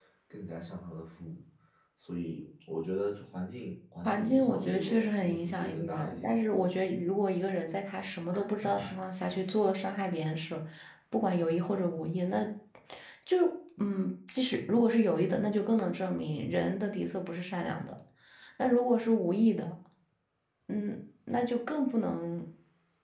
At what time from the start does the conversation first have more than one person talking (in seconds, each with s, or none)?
4.0 s